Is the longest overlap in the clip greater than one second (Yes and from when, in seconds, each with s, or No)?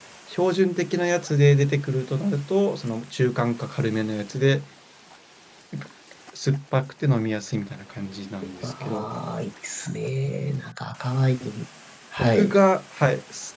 No